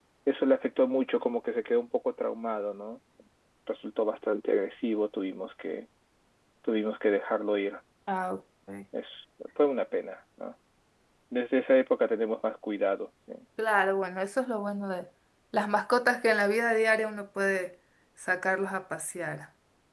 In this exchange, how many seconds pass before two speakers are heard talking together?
none

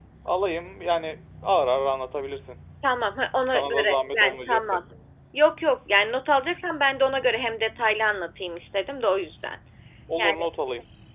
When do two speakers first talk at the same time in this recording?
3.5 s

